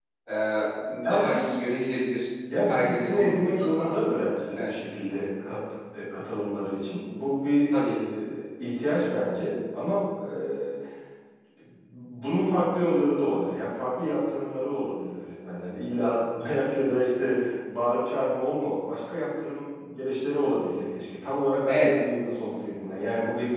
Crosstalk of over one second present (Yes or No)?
Yes